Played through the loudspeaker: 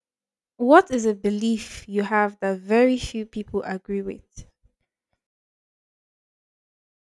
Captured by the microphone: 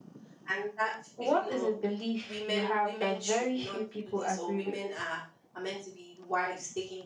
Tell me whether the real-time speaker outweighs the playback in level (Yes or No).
No